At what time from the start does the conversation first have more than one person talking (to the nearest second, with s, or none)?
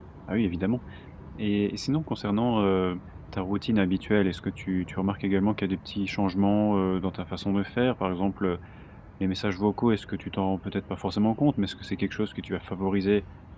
none